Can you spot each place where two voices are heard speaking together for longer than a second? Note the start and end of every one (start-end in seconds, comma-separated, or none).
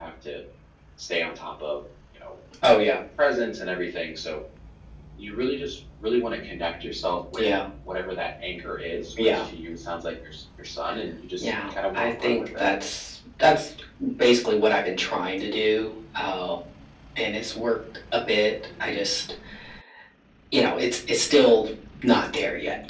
11.4-12.7